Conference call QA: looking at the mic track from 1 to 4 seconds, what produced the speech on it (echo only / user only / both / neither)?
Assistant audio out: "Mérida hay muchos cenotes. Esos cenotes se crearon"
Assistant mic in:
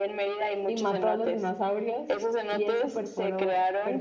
both